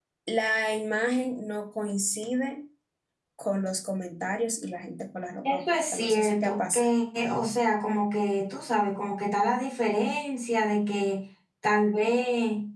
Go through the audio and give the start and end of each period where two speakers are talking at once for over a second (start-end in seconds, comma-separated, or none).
5.5-6.9